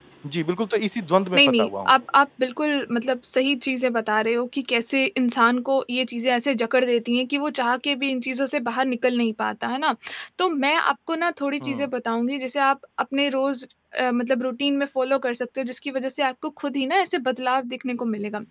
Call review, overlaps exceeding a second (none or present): none